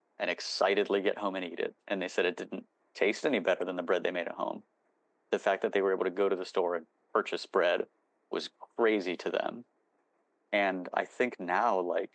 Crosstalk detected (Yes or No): No